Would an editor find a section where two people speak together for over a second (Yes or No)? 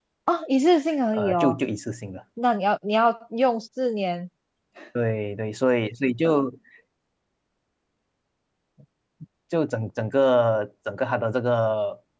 No